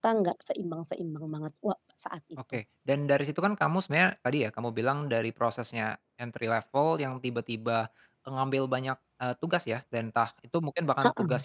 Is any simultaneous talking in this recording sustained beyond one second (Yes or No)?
No